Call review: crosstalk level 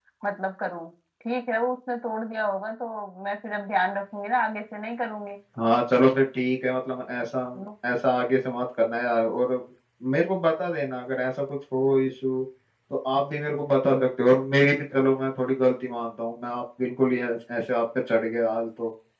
none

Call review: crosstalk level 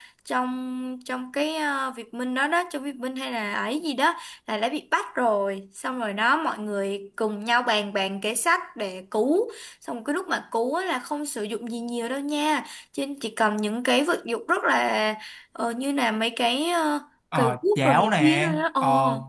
present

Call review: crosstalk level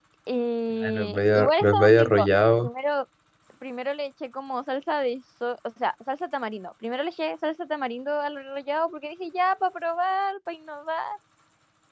present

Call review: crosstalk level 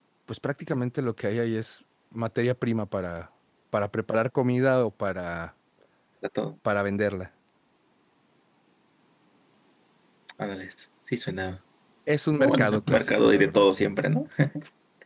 present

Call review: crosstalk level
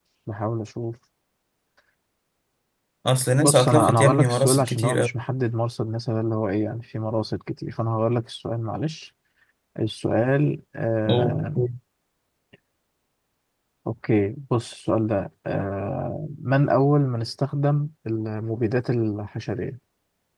present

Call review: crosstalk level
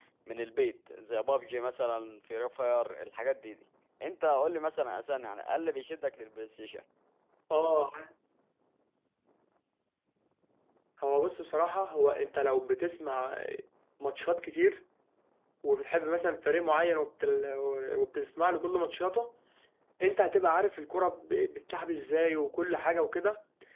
none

